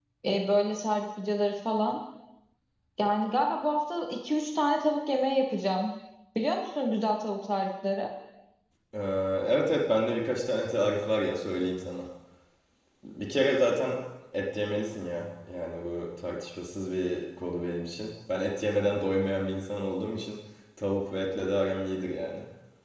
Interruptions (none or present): none